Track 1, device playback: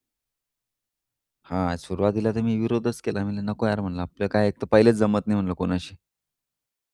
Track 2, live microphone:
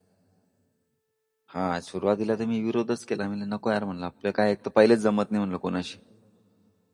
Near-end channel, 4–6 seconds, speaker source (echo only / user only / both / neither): echo only